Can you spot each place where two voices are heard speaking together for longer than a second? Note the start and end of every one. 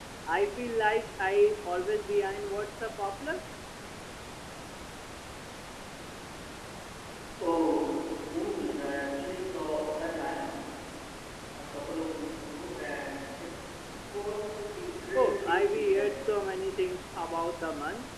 15.2-16.4

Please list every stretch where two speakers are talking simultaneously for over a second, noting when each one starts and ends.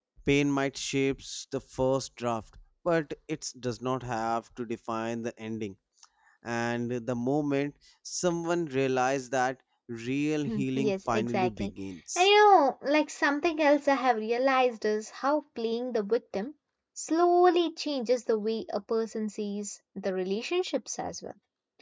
10.5-11.7

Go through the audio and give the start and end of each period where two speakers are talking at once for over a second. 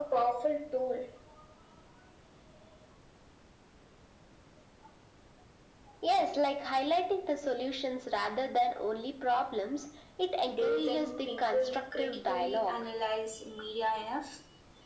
10.5-12.8

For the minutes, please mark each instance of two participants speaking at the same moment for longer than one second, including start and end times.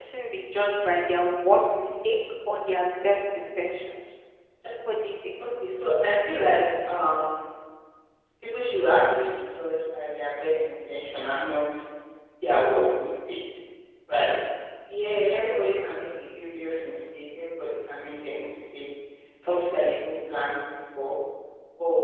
none

